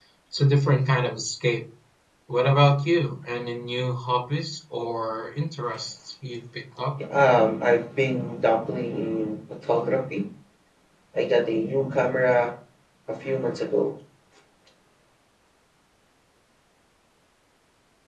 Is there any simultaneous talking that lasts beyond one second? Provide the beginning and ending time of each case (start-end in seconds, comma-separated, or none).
none